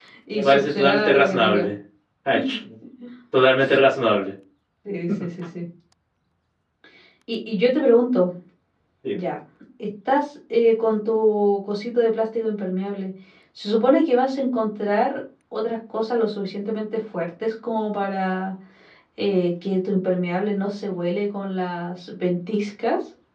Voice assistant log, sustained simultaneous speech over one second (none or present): present